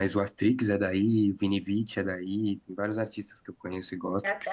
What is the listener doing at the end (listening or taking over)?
taking over